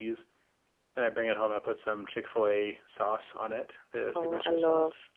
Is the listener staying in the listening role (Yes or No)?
No